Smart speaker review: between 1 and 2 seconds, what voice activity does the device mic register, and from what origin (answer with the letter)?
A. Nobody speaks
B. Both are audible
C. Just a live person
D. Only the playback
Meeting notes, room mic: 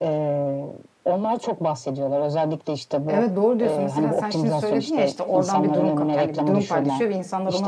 D